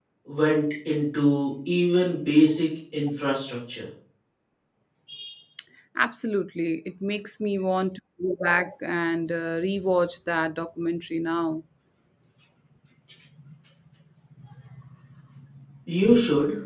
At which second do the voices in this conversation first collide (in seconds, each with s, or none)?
none